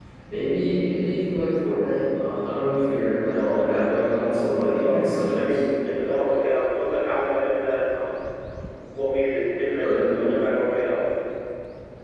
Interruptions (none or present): present